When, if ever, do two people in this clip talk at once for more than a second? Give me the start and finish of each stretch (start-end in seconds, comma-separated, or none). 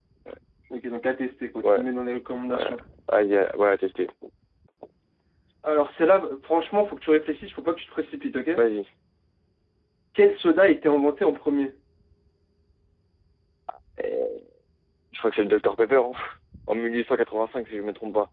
none